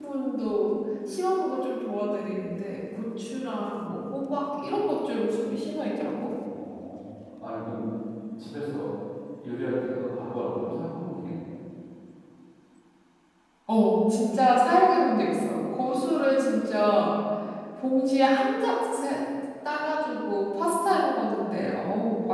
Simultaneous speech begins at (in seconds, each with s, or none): none